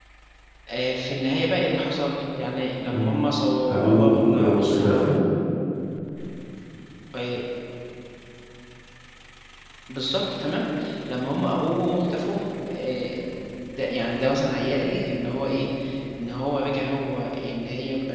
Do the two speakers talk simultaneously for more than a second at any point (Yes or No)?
Yes